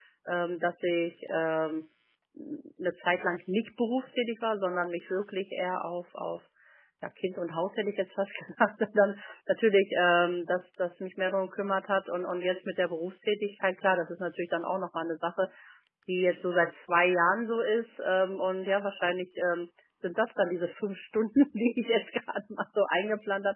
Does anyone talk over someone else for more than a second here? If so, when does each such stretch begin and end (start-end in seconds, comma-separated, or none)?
none